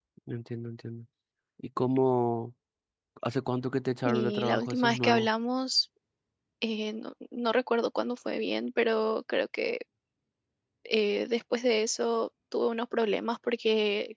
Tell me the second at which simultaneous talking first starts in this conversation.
4.0 s

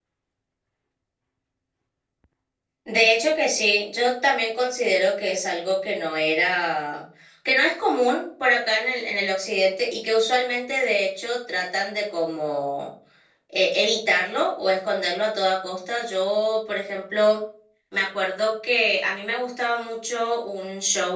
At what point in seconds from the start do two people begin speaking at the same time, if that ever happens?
none

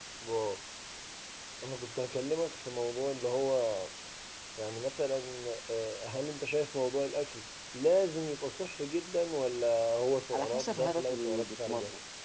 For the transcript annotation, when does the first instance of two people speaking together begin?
10.3 s

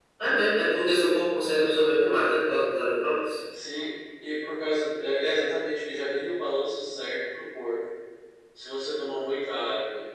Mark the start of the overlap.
none

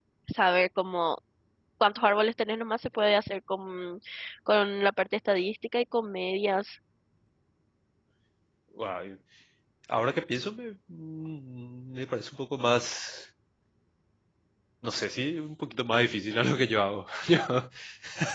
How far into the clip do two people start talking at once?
none

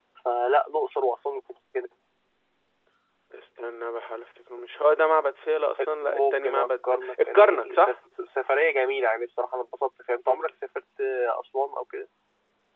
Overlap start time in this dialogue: 6.1 s

